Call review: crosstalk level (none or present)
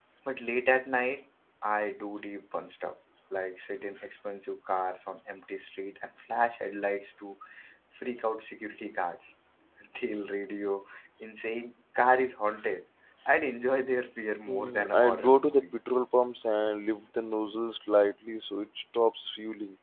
present